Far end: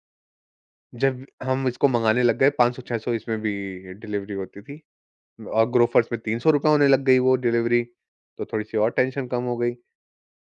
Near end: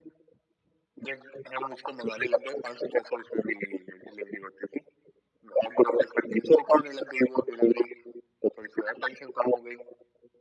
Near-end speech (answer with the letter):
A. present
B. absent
B